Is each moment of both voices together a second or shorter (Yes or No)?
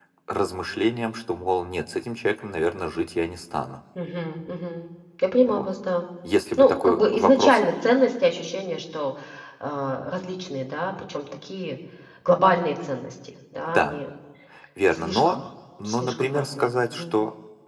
No